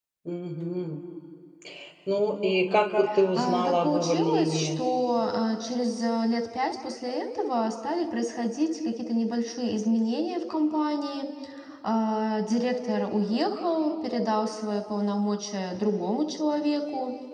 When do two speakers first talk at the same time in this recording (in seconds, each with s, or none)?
3.4 s